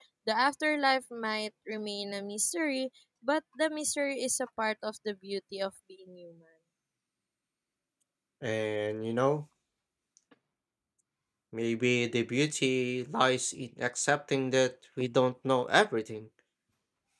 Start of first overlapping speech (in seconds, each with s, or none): none